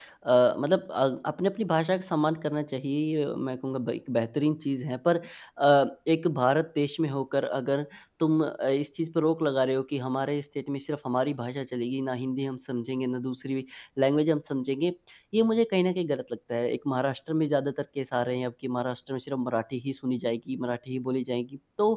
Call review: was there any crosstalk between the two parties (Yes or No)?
No